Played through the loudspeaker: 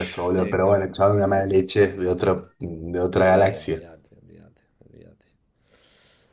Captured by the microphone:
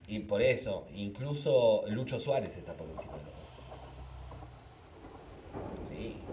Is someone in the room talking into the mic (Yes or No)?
Yes